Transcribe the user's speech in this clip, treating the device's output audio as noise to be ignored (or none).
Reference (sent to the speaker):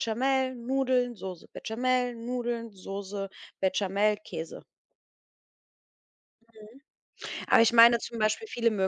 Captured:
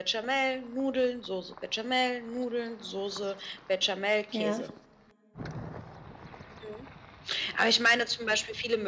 Ja,